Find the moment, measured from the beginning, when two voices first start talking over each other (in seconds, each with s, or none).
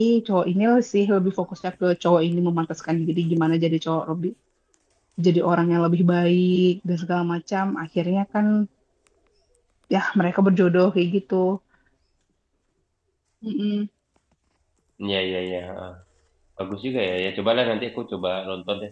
none